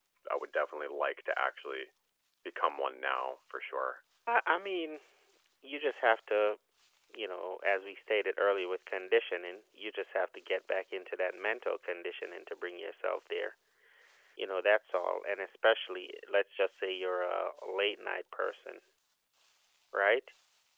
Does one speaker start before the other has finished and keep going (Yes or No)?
No